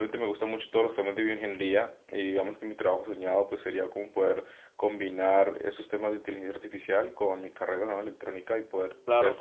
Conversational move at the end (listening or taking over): listening